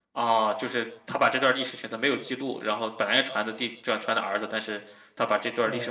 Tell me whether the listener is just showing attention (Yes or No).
No